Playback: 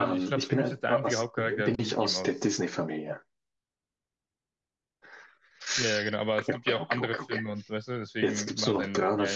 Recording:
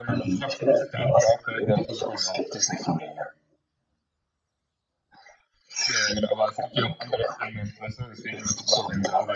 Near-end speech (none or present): none